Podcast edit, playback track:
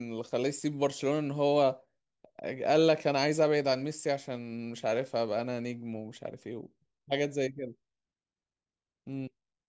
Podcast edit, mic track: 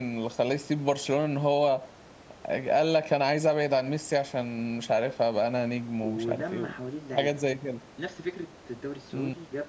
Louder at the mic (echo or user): echo